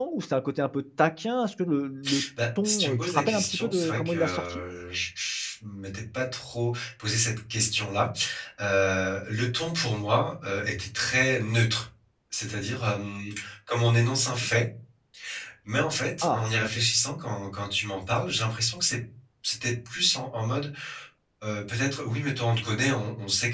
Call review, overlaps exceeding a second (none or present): present